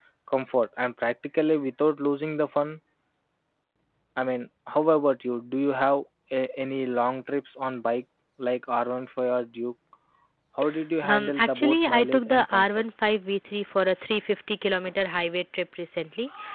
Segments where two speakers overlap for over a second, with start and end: 11.0-12.8

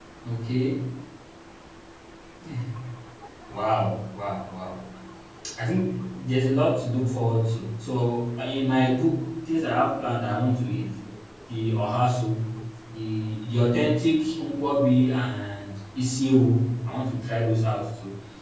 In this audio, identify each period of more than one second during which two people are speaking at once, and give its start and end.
none

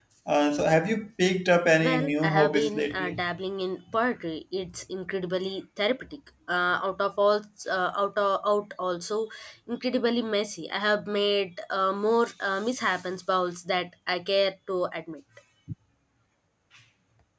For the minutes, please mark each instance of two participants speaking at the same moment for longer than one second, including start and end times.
1.8-3.2

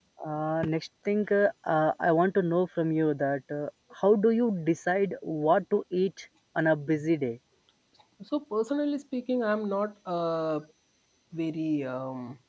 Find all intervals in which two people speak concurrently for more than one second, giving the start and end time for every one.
none

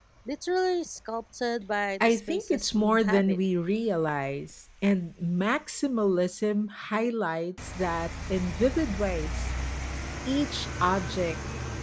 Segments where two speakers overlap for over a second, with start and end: 2.0-3.4

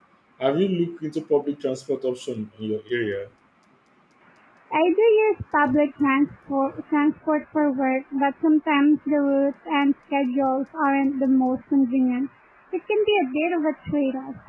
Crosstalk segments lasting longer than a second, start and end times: none

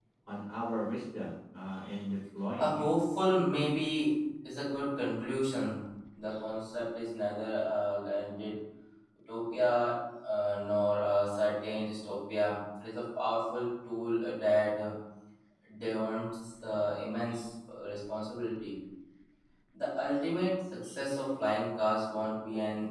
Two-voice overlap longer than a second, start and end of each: none

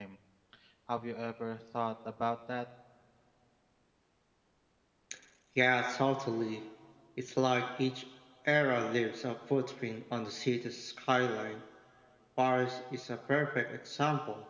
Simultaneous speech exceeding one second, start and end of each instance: none

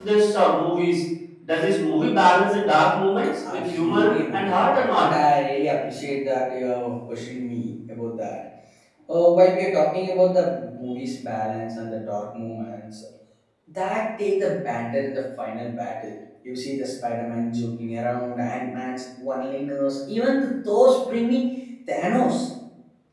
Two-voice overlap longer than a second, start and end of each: 3.5-5.0

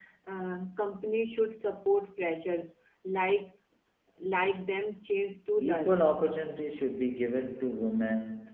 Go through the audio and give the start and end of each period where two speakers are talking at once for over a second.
none

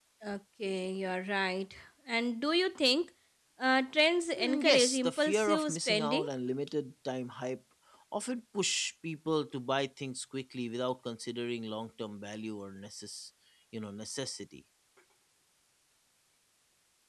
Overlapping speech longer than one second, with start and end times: 4.4-6.3

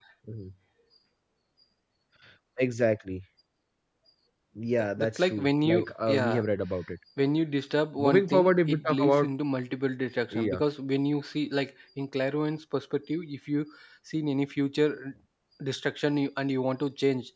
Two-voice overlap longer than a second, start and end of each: 5.0-6.4, 8.0-9.3

